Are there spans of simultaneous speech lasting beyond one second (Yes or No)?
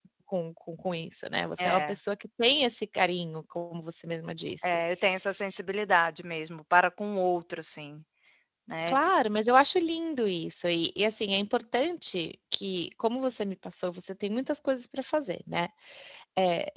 No